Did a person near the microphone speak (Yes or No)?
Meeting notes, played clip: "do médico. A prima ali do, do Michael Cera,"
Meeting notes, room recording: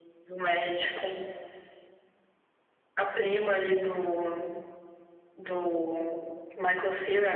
No